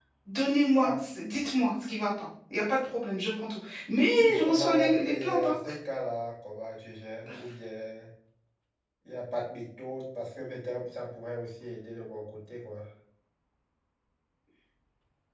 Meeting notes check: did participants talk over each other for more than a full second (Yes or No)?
Yes